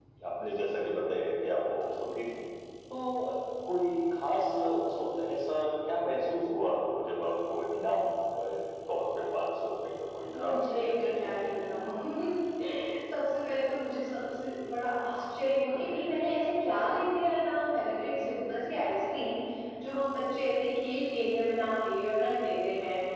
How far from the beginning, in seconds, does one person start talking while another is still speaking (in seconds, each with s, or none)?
10.3 s